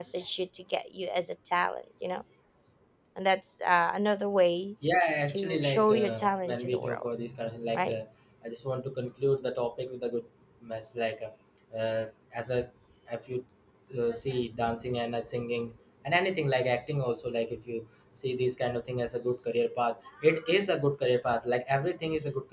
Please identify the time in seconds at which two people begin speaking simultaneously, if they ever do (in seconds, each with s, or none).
5.3 s